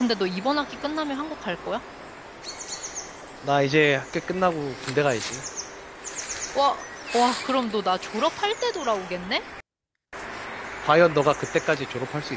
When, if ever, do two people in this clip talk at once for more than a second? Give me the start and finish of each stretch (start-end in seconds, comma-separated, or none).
none